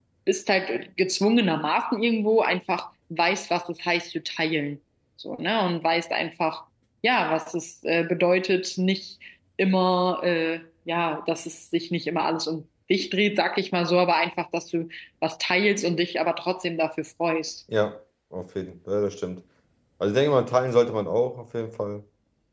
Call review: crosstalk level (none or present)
none